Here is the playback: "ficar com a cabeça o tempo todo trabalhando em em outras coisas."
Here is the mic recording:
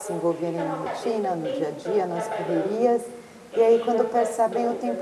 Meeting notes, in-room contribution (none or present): present